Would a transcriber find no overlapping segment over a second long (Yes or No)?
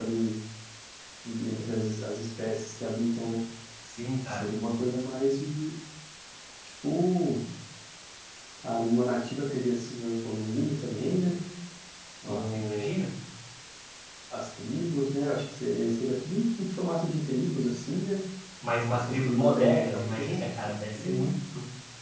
No